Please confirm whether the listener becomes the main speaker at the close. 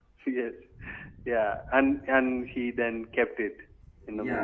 Yes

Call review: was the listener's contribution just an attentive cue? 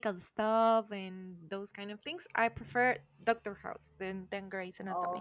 No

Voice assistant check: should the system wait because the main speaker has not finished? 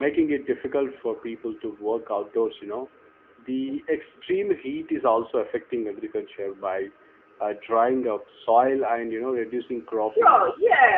No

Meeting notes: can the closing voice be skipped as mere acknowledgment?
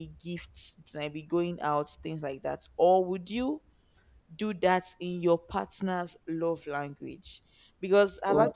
Yes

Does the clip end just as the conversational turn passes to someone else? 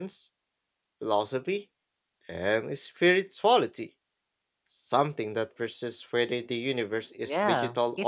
Yes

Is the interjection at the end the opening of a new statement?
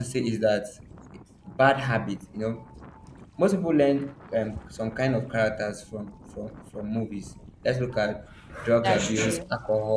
No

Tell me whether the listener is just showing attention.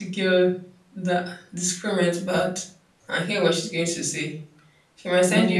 No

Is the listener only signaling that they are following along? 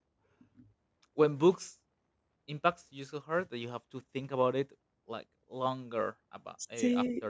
Yes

